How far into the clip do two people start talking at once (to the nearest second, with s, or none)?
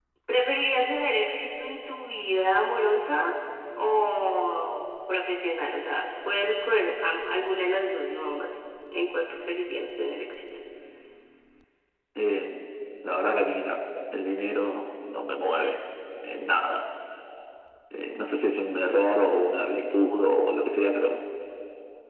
none